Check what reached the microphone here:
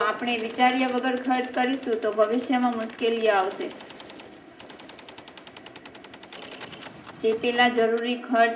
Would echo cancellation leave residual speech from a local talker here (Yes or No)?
No